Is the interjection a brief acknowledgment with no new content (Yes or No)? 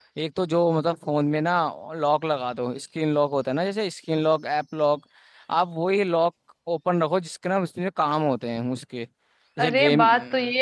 No